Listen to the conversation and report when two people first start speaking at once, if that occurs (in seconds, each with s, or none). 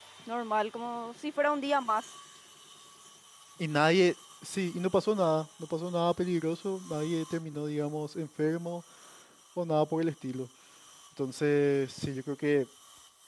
none